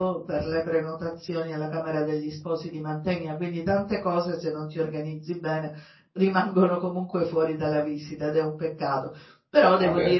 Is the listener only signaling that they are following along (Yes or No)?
Yes